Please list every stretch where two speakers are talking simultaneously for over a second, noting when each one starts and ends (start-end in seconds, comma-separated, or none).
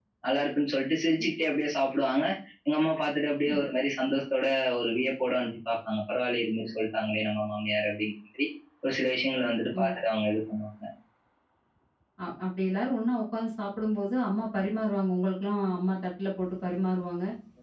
none